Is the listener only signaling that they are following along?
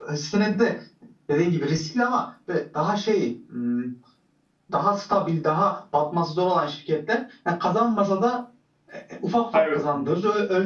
Yes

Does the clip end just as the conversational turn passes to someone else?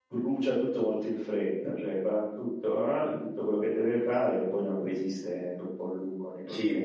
Yes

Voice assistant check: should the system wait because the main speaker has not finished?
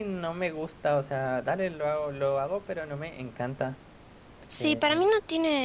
No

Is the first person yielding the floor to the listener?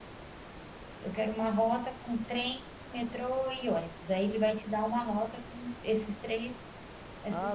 Yes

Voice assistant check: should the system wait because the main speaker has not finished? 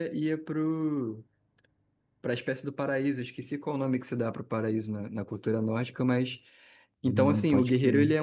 No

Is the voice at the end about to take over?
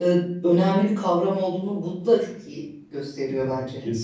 Yes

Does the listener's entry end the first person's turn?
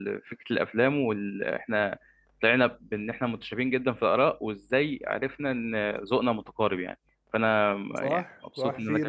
Yes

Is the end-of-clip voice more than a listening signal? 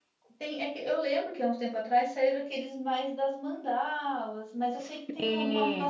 No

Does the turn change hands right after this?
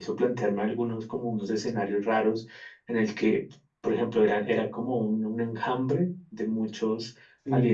No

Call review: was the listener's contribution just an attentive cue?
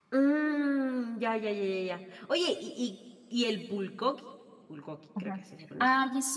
No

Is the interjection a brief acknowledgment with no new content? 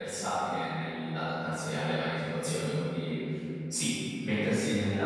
Yes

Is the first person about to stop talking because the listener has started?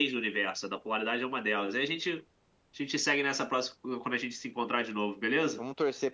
Yes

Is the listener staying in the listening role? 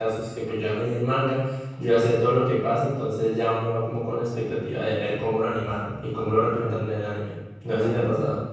No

